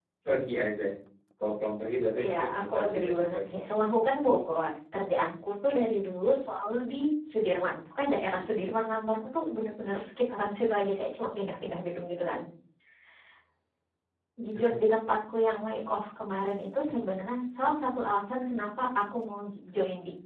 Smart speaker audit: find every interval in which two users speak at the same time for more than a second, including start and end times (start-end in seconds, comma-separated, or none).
2.2-3.9